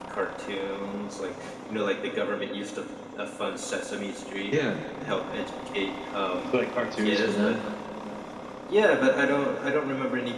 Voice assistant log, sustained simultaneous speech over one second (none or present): none